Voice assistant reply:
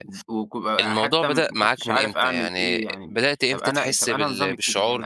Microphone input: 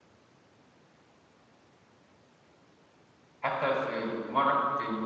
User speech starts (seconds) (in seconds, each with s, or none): 3.4 s